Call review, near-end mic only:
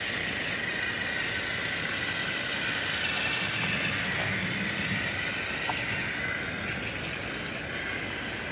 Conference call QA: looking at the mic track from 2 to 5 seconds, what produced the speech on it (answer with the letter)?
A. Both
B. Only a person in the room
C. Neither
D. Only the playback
C